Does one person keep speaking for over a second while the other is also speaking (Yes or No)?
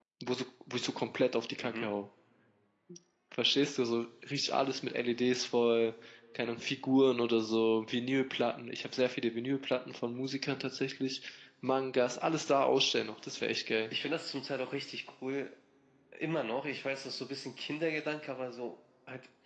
No